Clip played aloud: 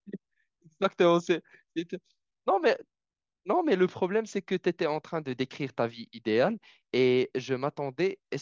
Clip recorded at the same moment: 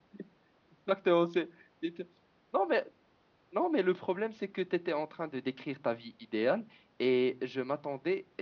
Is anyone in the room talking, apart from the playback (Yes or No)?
No